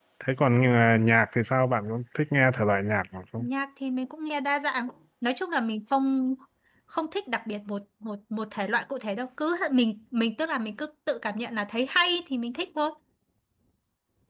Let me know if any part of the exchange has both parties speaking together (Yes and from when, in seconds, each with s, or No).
No